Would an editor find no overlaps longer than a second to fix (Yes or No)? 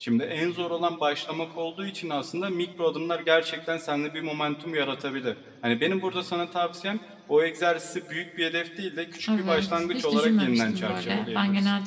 No